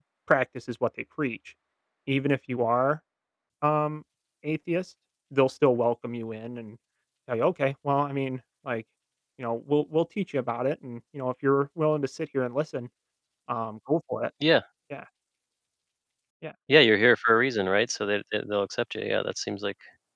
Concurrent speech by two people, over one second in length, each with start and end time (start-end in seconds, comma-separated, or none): none